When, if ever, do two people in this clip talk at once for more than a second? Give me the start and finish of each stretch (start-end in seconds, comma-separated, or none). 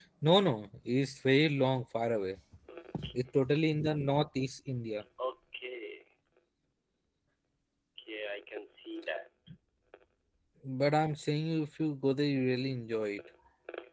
none